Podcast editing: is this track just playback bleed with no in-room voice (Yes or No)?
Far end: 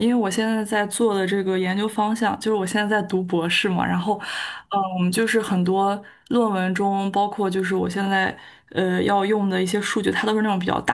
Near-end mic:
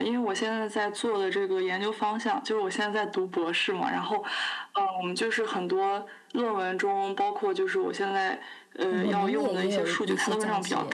No